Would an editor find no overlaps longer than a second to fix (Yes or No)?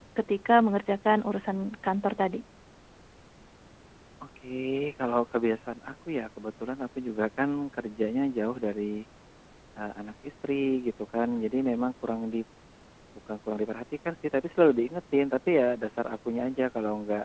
Yes